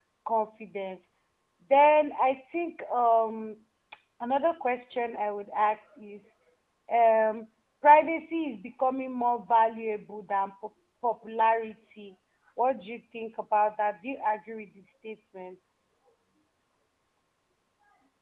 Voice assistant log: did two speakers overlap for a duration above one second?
No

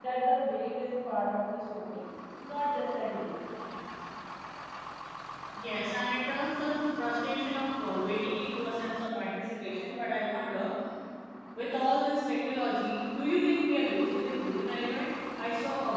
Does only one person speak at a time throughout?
Yes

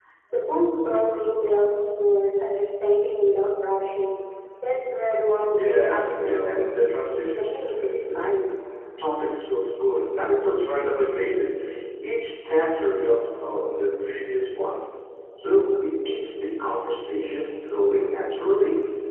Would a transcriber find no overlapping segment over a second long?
No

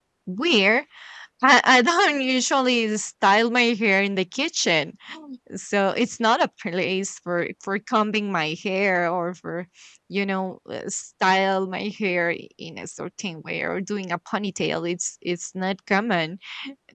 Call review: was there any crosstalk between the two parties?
No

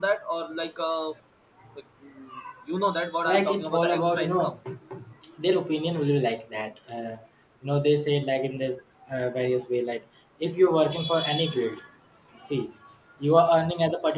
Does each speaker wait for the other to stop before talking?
No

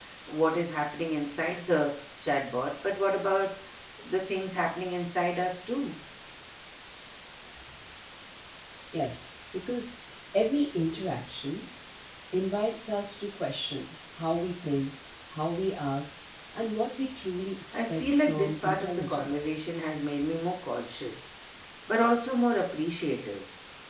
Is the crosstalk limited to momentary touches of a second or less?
No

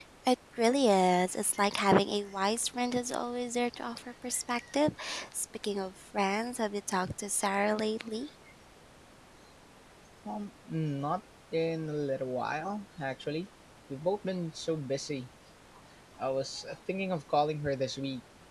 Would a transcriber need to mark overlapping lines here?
No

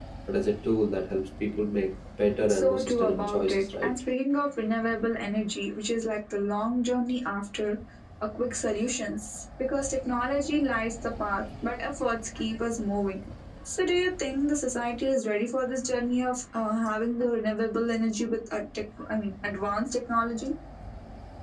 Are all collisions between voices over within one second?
No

